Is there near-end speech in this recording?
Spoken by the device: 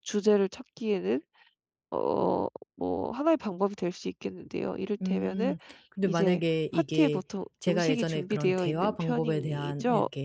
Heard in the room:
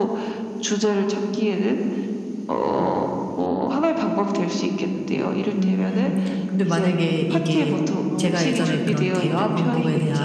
Yes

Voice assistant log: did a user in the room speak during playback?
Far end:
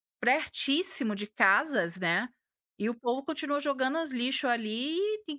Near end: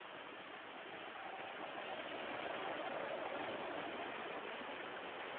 No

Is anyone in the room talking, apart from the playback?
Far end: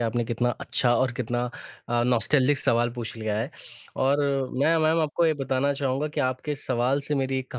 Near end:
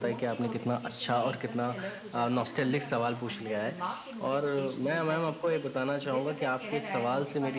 Yes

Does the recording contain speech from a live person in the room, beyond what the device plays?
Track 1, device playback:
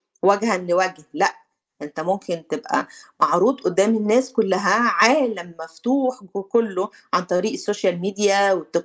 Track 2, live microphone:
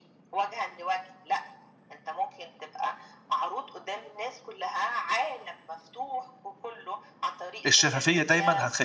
Yes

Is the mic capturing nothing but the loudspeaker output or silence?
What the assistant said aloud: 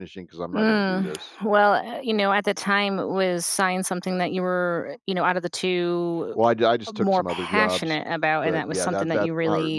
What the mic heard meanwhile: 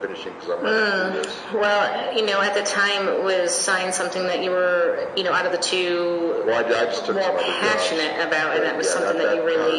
Yes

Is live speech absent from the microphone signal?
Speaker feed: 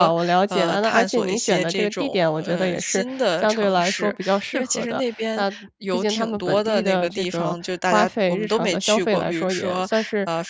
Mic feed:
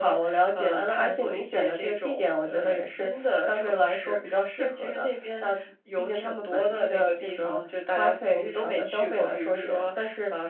Yes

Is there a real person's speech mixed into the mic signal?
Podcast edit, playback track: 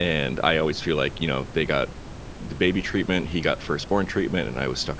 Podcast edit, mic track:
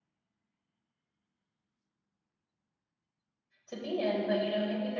Yes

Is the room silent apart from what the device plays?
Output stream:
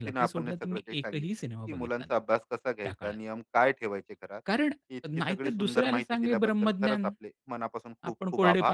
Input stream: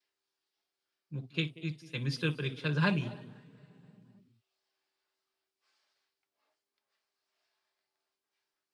No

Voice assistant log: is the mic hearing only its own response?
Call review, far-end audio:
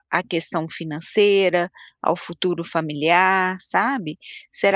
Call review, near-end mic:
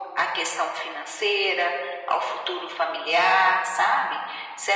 Yes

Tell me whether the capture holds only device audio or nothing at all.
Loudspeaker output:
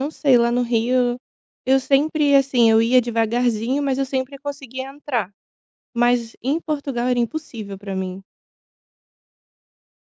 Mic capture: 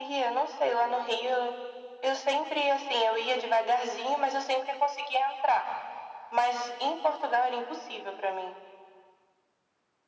Yes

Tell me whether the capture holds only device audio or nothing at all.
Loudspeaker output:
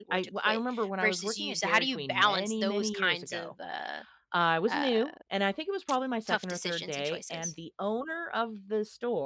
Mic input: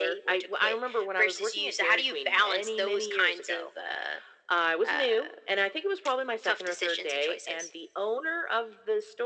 Yes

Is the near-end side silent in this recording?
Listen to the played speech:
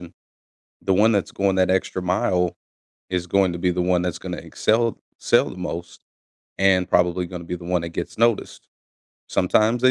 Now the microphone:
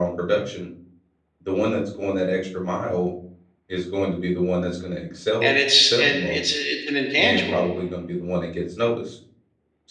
No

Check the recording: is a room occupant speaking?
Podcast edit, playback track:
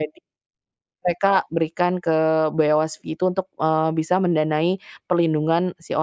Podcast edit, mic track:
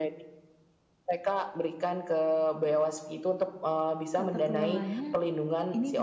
Yes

